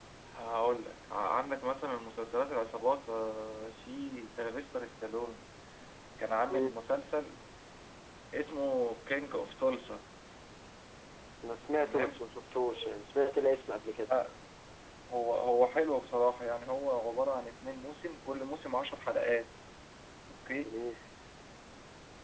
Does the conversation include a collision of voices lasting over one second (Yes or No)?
No